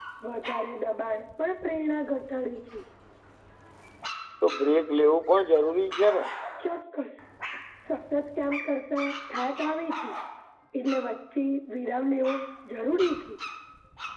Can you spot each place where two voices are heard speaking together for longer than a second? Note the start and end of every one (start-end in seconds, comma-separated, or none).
none